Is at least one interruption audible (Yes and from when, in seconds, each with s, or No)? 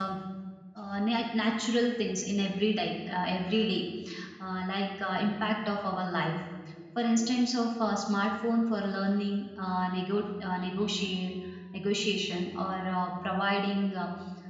No